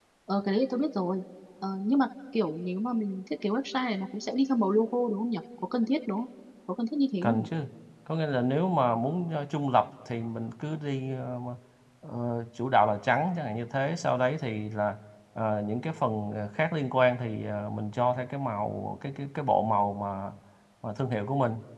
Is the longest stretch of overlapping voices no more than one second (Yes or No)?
Yes